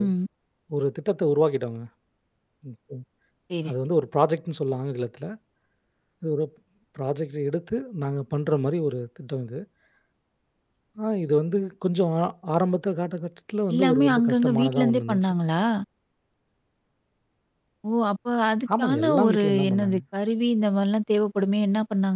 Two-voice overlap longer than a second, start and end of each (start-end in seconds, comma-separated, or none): 13.7-15.3, 18.8-20.0